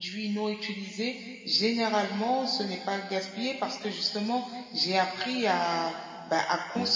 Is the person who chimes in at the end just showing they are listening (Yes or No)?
Yes